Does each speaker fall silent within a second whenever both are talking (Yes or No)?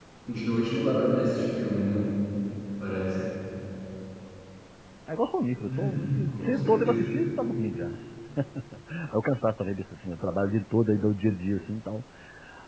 No